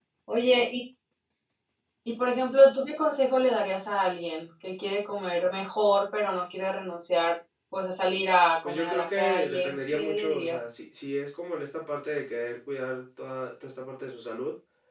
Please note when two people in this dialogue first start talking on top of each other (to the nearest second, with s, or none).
9 s